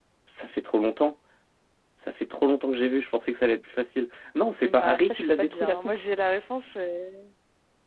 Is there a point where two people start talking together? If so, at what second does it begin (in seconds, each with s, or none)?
4.6 s